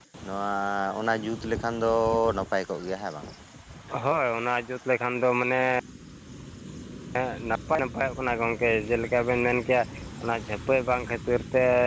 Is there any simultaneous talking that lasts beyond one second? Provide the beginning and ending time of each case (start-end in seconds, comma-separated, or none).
none